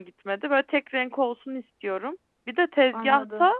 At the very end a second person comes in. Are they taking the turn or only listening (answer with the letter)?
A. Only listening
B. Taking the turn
A